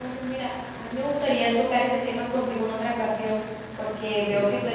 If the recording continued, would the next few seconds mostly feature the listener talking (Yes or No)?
No